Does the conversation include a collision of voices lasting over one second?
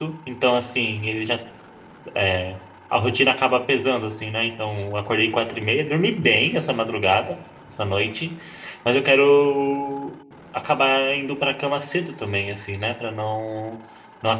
No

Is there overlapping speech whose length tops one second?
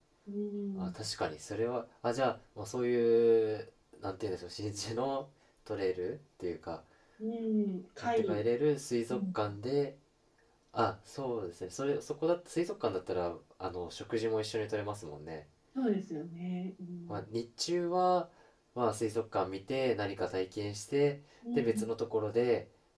No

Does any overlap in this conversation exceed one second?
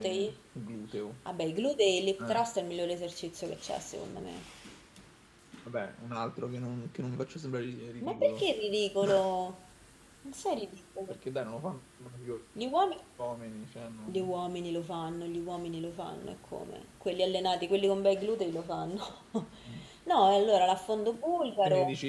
No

